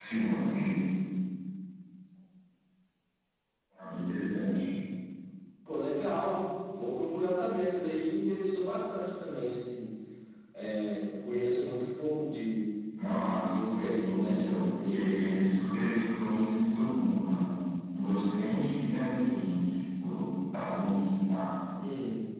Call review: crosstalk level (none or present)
present